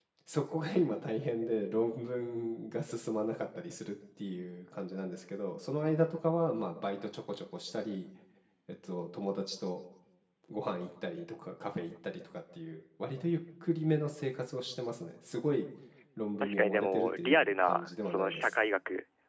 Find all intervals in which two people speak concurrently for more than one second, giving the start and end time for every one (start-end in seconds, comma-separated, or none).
16.4-18.5